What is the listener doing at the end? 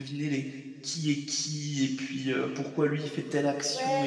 taking over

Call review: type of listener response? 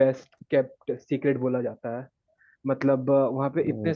listening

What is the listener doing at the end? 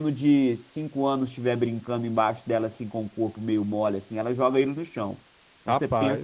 listening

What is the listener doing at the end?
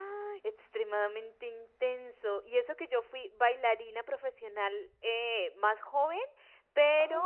listening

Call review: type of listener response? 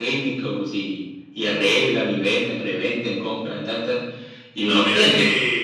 taking over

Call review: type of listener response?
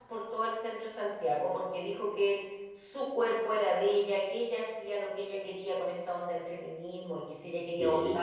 listening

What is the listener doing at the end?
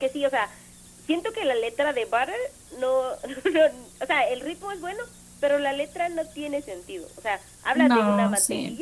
listening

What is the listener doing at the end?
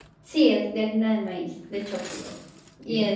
taking over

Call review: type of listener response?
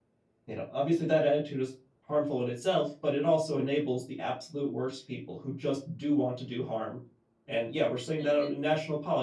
listening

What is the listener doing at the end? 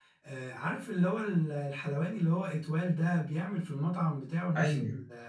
listening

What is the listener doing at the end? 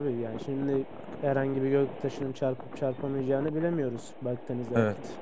taking over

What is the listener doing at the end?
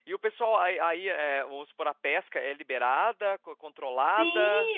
taking over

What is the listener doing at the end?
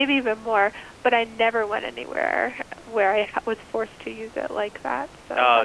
taking over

